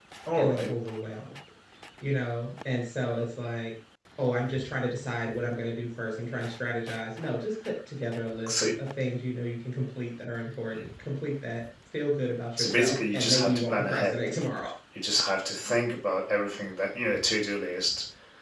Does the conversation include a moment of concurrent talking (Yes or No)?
Yes